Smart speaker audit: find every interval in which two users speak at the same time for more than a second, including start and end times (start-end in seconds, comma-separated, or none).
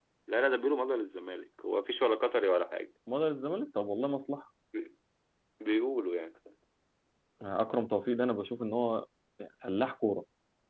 none